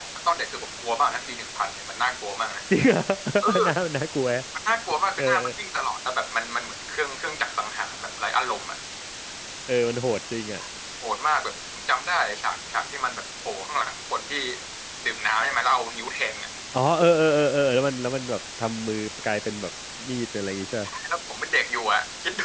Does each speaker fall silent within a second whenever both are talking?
Yes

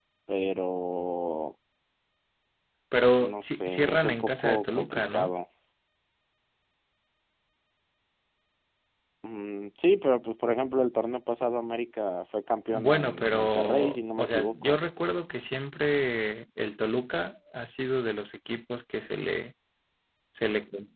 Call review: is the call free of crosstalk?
No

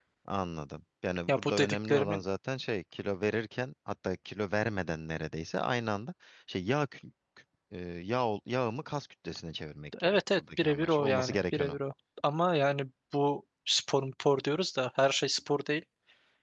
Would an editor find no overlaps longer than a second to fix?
No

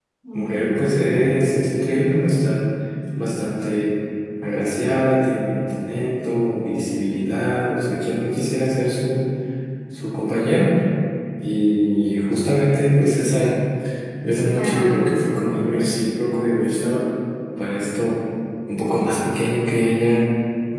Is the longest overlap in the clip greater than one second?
Yes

